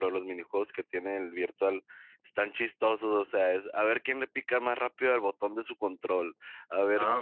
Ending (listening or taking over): listening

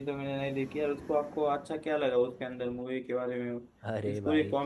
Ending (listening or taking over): taking over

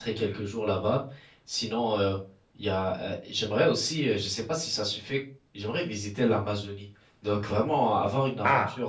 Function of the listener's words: listening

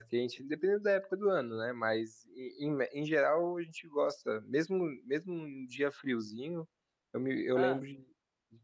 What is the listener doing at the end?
listening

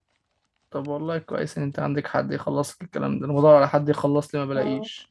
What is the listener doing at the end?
listening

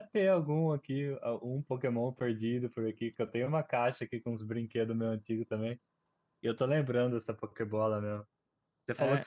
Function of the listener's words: listening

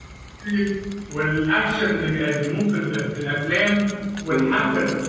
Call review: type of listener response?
listening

